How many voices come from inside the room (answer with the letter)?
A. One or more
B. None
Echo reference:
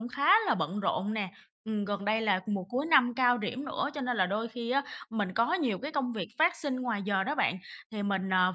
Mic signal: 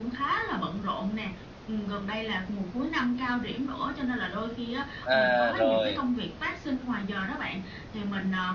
A